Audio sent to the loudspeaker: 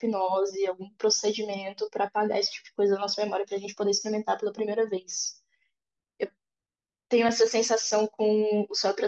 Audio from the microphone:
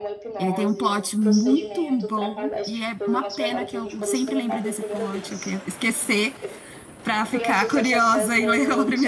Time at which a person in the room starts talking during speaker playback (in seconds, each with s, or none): 0.4 s